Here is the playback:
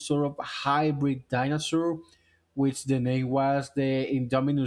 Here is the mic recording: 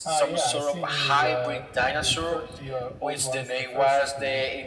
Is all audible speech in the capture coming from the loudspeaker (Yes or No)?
No